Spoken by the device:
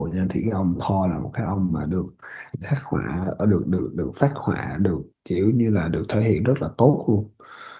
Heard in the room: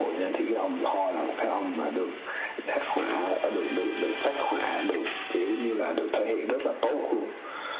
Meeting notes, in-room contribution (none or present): none